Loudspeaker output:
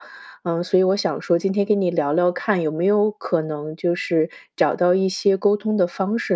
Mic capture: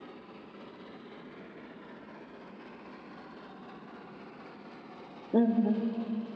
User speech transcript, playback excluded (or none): 嗯哼。